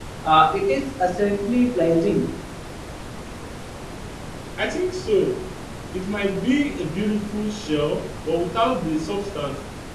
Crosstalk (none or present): none